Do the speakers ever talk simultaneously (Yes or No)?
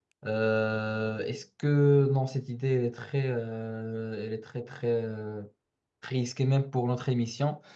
No